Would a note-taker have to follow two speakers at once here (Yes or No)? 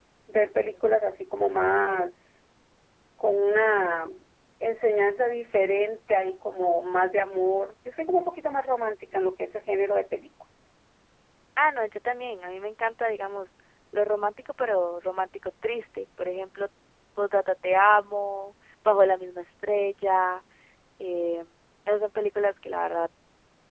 No